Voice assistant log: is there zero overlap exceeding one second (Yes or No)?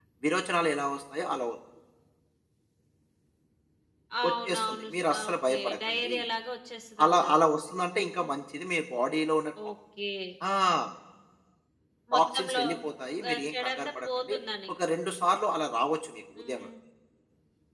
No